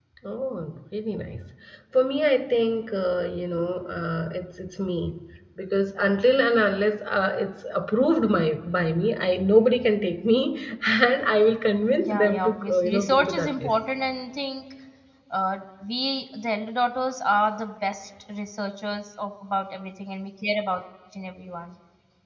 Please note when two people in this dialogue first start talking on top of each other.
11.9 s

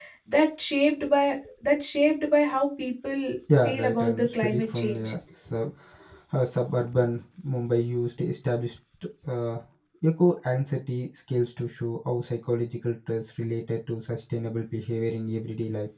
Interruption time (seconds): 3.5 s

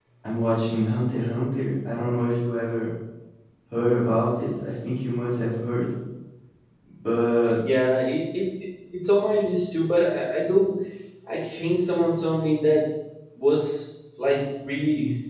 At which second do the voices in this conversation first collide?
none

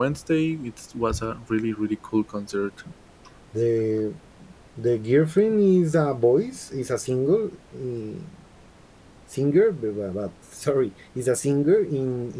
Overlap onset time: none

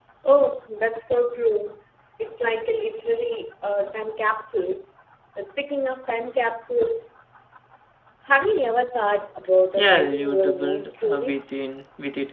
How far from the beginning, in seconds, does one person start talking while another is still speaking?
9.8 s

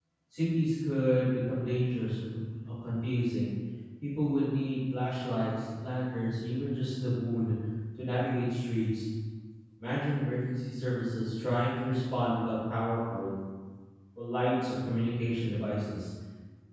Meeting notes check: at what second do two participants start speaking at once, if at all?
none

